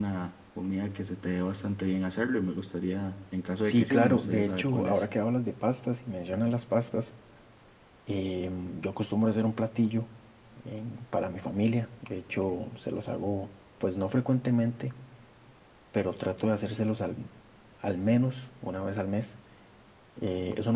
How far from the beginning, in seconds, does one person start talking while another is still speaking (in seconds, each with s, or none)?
3.6 s